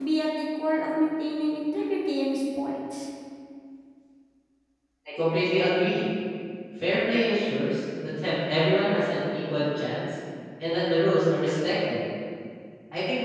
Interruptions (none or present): none